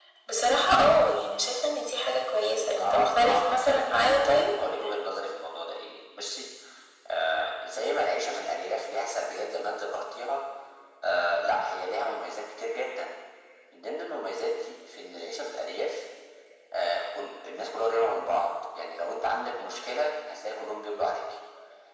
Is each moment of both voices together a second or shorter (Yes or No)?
No